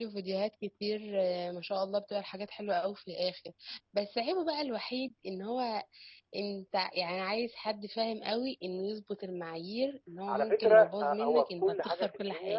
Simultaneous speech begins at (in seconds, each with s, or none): 10.3 s